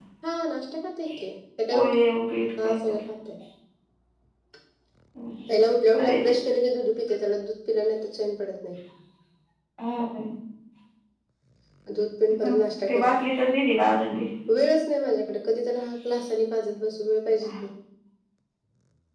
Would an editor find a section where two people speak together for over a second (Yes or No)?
No